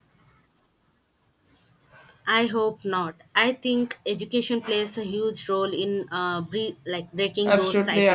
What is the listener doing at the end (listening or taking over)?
taking over